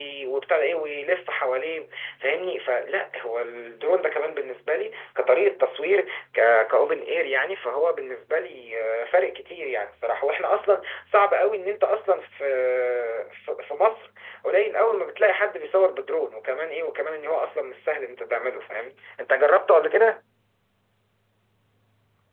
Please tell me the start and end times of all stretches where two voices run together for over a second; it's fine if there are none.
none

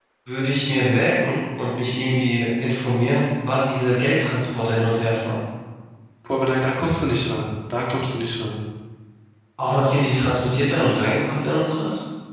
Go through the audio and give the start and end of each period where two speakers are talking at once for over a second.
none

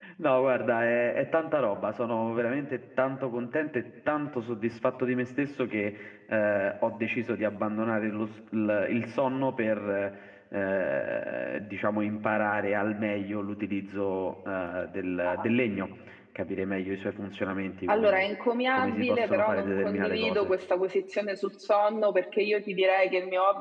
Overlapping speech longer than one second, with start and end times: 18.7-20.5

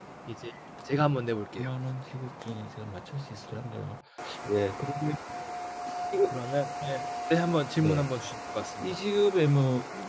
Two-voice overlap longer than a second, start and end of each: none

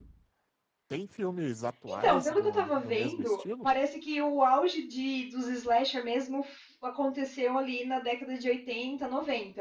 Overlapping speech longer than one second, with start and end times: 1.9-3.7

